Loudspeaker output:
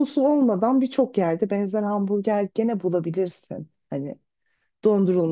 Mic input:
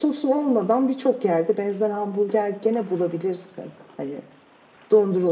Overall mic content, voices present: echo only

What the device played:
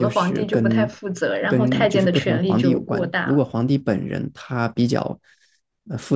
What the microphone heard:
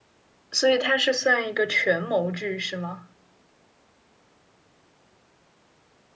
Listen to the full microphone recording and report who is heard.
user only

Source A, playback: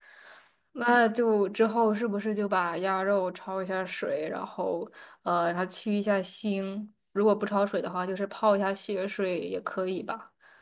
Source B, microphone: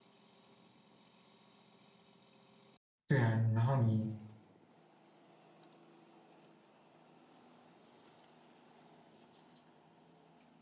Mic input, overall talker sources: user only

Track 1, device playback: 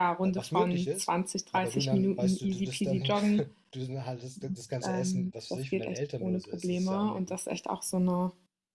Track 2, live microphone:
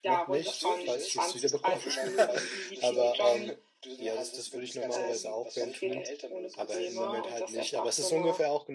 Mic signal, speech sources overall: both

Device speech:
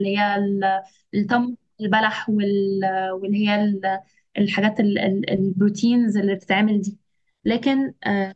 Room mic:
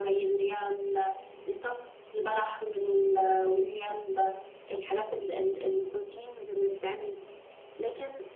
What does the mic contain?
echo only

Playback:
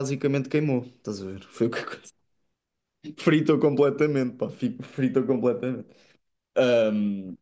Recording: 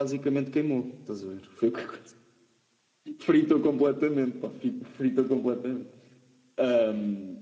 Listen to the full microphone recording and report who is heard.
echo only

